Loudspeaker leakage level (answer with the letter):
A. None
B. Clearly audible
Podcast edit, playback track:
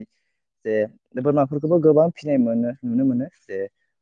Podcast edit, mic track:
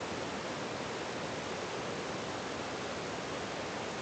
A